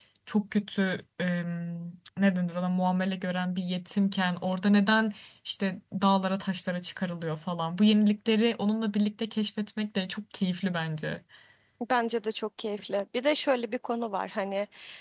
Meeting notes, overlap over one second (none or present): none